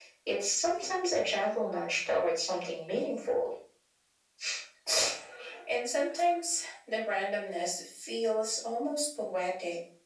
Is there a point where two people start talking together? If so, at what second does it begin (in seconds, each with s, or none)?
none